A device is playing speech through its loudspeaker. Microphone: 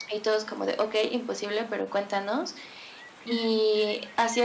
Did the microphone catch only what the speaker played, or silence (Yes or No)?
No